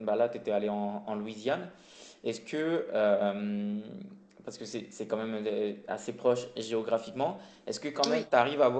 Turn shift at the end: No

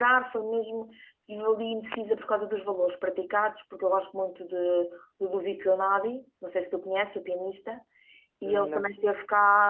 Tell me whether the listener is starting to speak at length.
No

